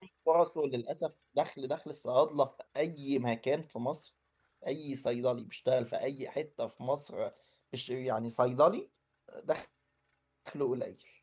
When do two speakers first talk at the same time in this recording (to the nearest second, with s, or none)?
none